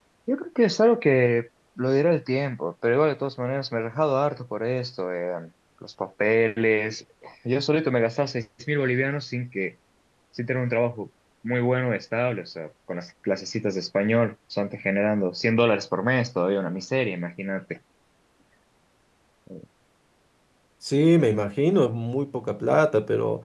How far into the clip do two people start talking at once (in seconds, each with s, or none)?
none